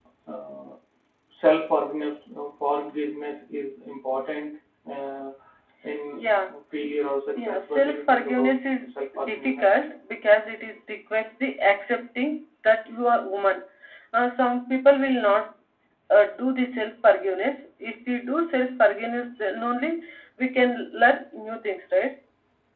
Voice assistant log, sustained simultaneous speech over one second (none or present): present